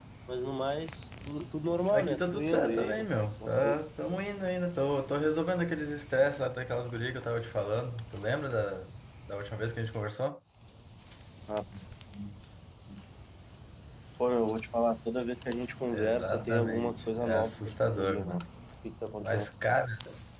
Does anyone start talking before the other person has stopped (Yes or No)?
Yes